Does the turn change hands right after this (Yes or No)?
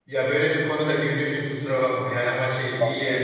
No